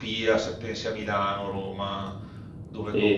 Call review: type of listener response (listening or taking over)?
taking over